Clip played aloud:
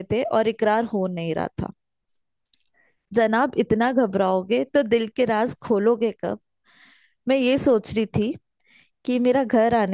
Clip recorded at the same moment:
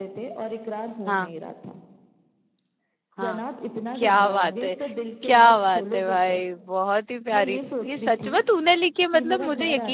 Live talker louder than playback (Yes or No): Yes